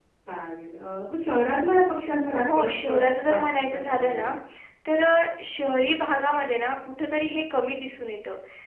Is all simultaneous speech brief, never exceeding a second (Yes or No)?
No